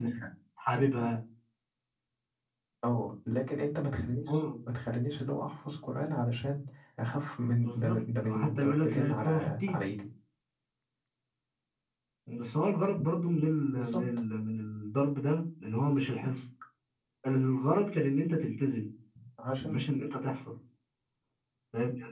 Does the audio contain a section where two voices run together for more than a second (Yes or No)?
Yes